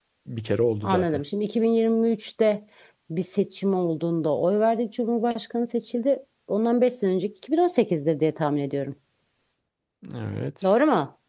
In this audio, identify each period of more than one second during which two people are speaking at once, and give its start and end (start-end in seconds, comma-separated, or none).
none